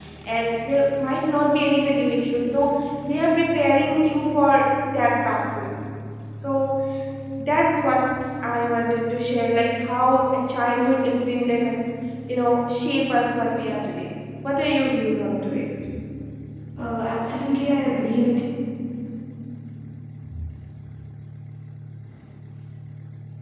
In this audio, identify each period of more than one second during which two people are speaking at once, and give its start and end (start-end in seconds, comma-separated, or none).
none